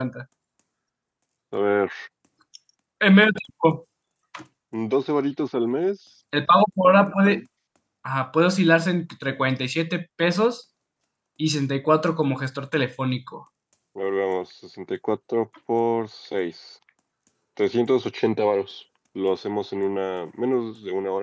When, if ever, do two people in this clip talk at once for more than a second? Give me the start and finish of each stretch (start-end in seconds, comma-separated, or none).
none